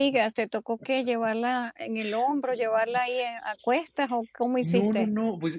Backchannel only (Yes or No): No